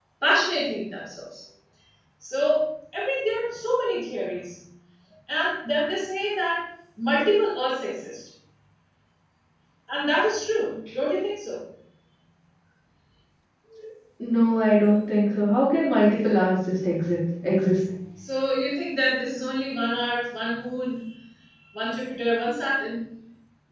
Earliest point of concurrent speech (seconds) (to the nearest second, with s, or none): none